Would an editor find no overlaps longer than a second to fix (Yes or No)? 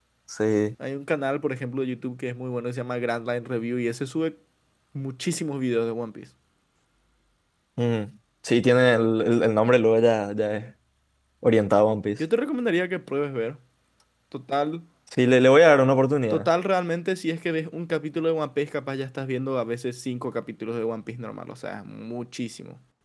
Yes